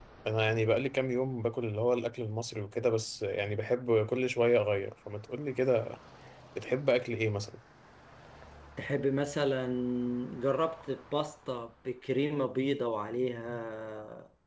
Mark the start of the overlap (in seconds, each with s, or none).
none